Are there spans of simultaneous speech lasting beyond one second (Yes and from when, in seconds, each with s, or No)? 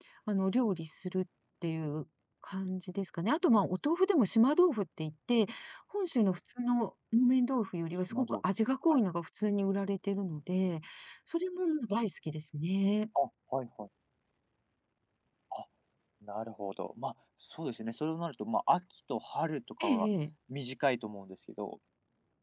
No